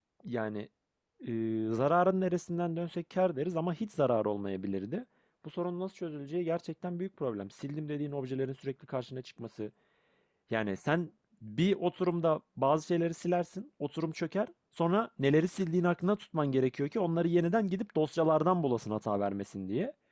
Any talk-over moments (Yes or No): No